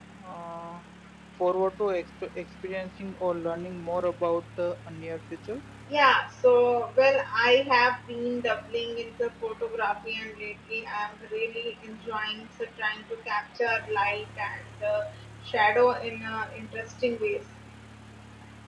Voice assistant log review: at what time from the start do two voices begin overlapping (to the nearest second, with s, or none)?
none